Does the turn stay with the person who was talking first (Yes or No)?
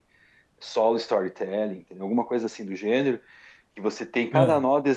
Yes